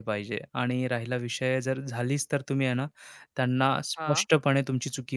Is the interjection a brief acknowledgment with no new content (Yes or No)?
Yes